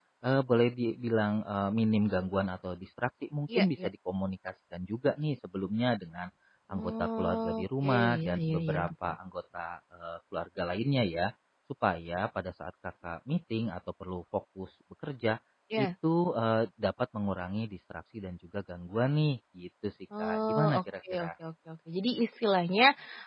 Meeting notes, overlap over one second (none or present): present